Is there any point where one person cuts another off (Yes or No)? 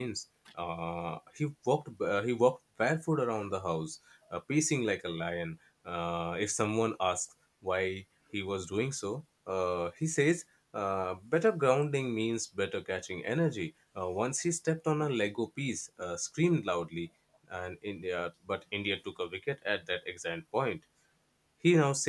No